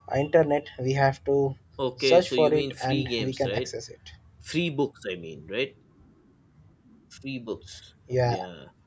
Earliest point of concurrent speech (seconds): 2.0 s

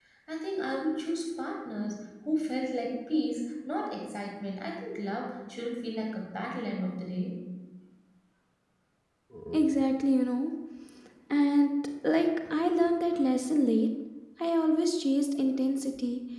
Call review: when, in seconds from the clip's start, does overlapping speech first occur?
none

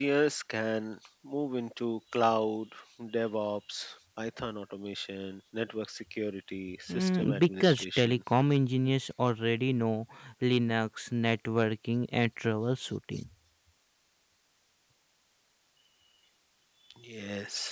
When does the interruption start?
6.9 s

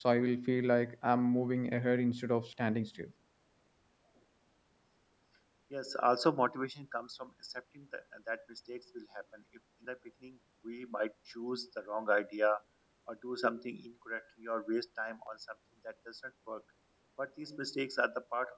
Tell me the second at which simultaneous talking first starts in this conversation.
none

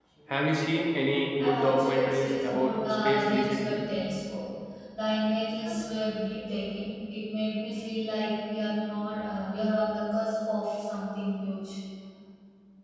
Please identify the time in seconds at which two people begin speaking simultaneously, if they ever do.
1.4 s

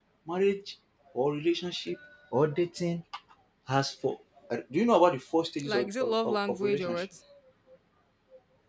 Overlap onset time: 5.6 s

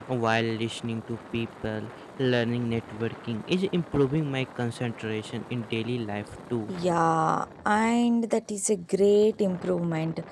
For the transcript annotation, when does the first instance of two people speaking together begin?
none

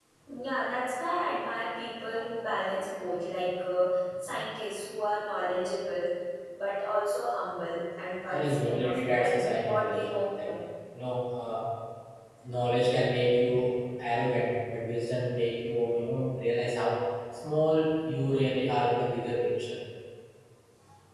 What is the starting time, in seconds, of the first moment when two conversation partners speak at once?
8.3 s

